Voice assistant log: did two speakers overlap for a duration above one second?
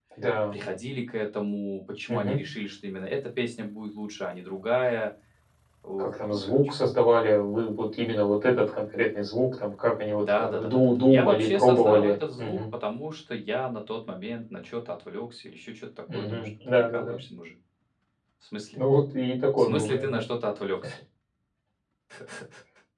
Yes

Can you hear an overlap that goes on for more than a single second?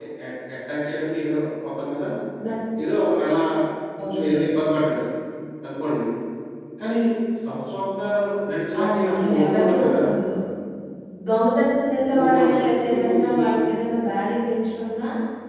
Yes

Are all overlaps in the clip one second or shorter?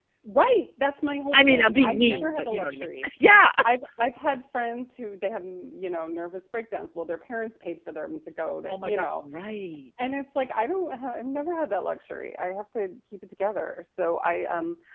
No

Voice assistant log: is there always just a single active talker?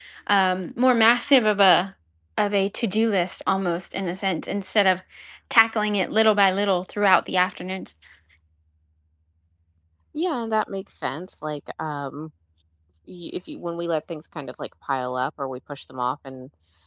Yes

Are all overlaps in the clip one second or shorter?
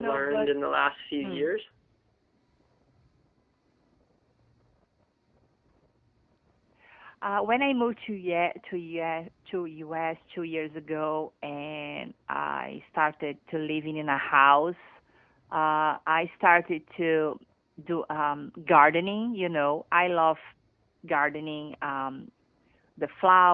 Yes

